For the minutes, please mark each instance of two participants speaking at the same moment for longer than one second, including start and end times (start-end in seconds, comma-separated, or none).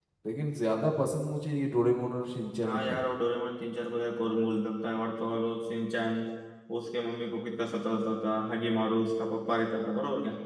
none